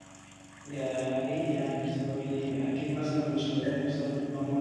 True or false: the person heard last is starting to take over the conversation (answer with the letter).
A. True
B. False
B